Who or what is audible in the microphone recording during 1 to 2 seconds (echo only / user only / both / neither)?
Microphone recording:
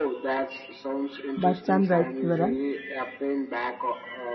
both